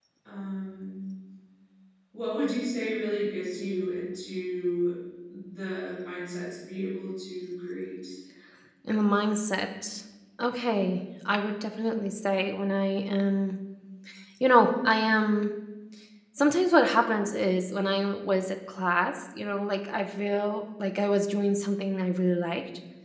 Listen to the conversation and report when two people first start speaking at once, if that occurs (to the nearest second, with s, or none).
none